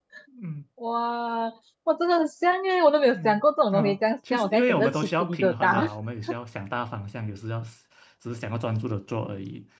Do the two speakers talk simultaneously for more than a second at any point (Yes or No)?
Yes